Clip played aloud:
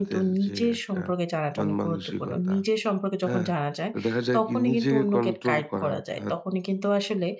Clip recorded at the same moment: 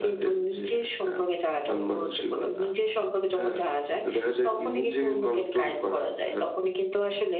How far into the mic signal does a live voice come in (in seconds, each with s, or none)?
none